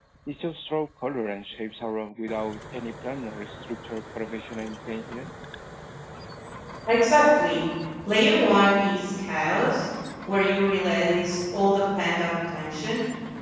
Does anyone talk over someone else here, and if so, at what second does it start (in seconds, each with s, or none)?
none